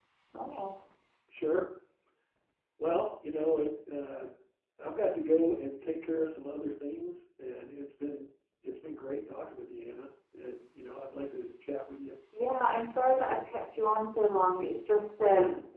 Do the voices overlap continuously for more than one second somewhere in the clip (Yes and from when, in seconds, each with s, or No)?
Yes, from 12.4 s